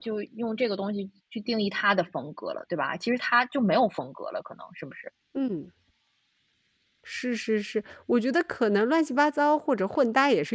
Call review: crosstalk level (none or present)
none